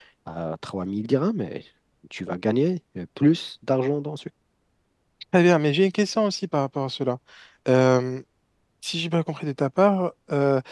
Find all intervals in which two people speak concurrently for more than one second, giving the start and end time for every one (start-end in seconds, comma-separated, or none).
none